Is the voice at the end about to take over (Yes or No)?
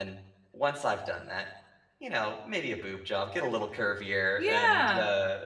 Yes